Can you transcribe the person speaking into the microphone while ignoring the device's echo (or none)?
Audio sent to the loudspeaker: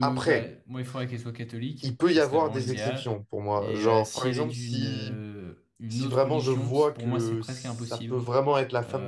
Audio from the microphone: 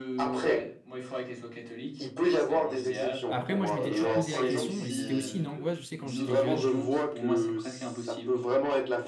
Après, moi, je m'étais toujours posé la question et c'était aussi une angoisse, je sais, quand j'étais jeune.